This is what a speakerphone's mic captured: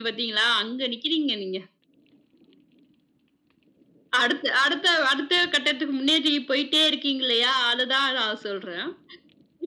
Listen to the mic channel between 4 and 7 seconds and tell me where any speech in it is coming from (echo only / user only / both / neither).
echo only